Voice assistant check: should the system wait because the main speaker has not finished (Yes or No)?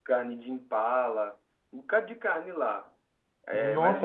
No